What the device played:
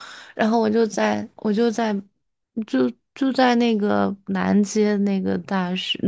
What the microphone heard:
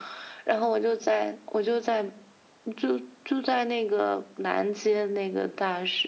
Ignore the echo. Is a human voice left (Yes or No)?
No